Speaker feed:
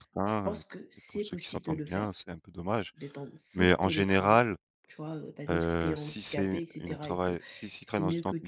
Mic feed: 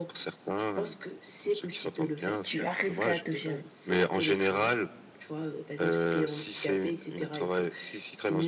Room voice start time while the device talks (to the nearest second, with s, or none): 2 s